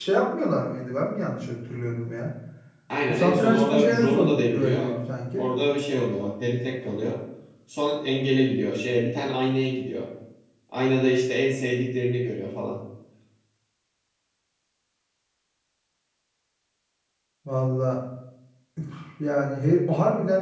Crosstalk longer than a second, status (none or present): present